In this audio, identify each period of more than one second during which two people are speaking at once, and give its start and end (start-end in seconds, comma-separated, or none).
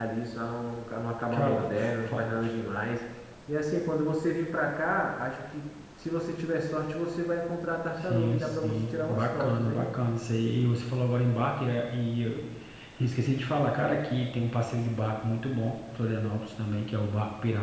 8.0-9.9